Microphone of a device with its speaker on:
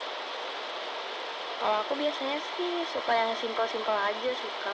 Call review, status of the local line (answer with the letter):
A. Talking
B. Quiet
B